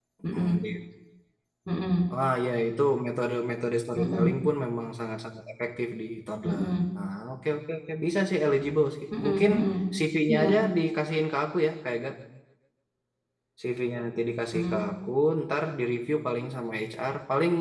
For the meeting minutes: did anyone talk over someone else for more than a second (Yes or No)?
No